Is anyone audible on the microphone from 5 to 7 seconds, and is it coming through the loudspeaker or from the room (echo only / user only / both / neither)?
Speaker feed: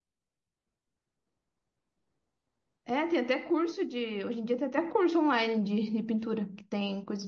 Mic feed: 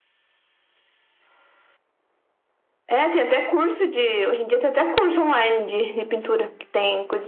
echo only